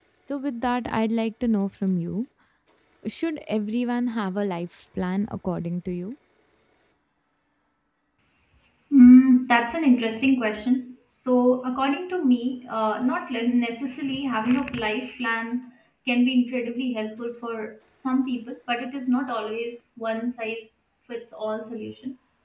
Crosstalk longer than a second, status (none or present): none